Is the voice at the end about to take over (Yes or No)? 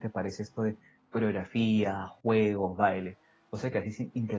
Yes